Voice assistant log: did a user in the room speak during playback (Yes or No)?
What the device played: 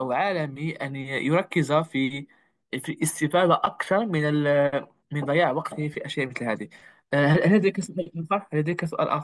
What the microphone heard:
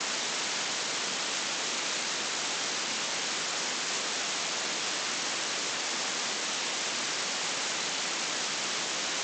No